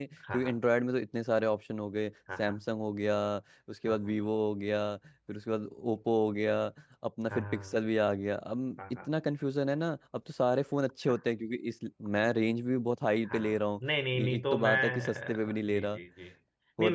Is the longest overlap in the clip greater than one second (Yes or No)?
Yes